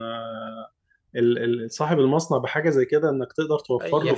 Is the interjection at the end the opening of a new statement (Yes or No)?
Yes